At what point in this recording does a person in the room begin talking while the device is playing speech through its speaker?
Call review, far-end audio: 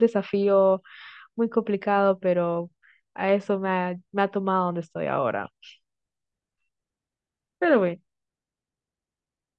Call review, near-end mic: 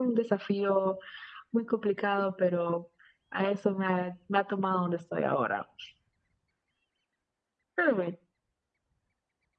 none

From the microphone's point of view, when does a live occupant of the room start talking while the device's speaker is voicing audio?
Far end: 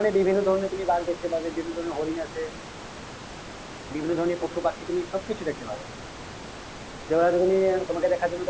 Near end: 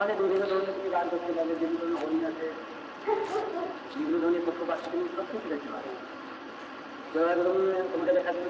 none

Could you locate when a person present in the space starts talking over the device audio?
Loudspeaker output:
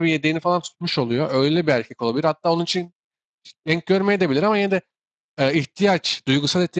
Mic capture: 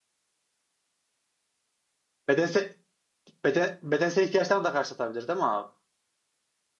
2.3 s

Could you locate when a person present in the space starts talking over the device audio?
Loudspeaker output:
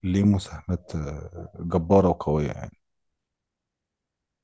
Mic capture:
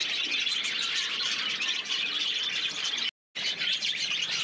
none

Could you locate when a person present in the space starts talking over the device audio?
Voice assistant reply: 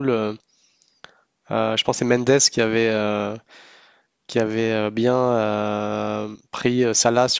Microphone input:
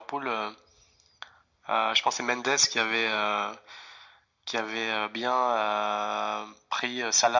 none

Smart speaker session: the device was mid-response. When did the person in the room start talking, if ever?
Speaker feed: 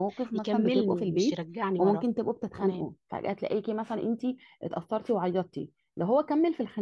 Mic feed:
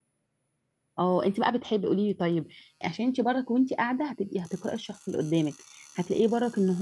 1.0 s

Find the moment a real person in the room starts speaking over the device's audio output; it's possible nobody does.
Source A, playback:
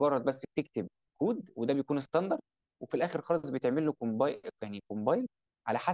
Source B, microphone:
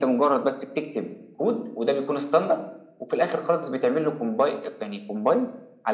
none

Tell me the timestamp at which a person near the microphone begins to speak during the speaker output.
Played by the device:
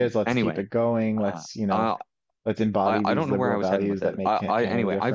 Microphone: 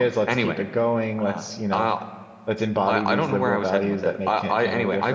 none

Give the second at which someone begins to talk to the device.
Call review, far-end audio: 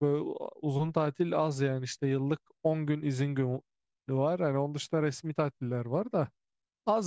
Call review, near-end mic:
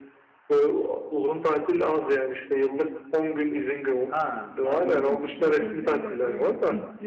4.0 s

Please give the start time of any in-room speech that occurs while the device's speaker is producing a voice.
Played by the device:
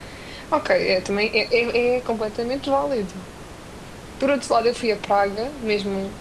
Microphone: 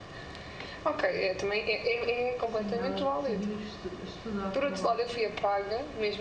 2.4 s

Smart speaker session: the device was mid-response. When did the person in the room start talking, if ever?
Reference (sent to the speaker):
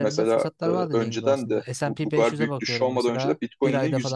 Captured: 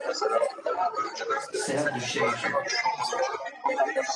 1.5 s

